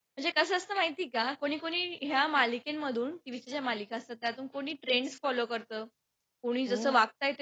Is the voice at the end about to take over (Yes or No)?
No